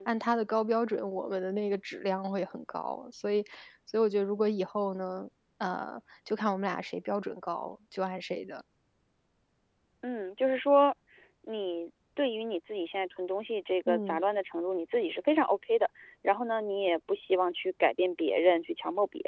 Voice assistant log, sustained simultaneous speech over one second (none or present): none